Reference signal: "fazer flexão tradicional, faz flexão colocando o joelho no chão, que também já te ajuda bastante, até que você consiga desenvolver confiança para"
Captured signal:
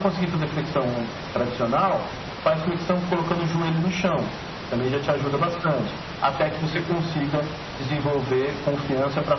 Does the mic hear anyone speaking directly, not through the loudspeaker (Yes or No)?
No